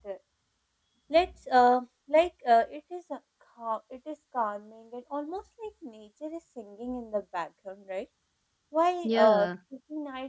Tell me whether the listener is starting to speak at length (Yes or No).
No